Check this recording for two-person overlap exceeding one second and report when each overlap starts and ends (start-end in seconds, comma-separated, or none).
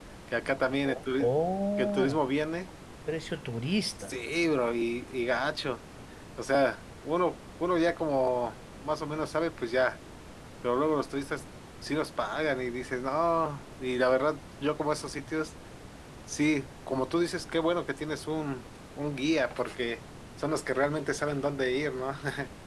none